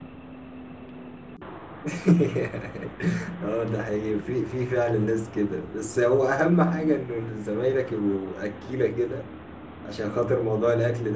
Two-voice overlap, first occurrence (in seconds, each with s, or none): none